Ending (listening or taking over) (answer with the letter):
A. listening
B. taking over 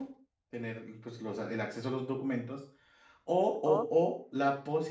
A